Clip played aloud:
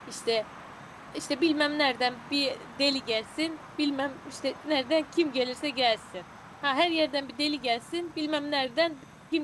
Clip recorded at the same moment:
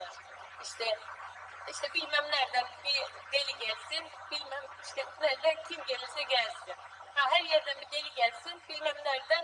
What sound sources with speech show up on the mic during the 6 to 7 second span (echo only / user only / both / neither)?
echo only